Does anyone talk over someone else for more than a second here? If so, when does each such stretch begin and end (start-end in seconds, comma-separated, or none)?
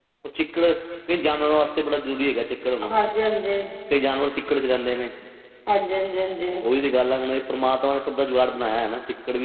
none